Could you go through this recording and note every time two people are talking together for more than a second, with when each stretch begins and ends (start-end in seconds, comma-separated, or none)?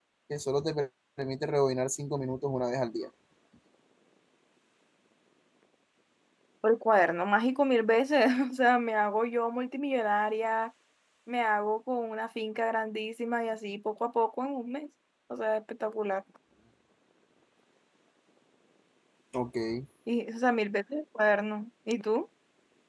none